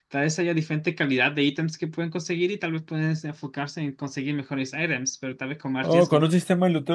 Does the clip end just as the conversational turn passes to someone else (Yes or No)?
Yes